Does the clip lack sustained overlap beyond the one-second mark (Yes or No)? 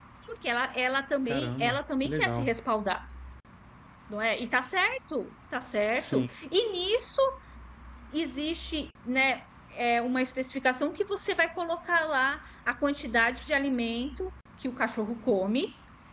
No